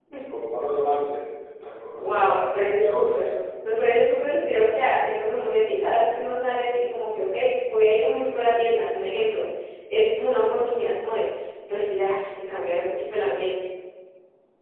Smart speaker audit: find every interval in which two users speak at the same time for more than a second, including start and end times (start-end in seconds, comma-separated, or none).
2.0-3.3